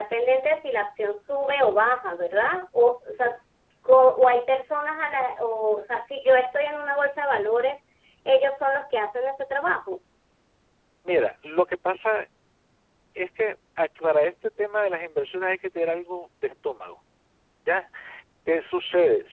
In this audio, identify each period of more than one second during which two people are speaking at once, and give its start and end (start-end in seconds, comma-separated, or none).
none